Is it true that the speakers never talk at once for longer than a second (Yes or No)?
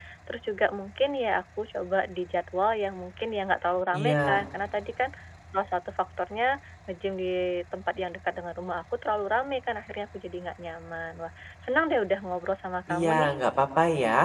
Yes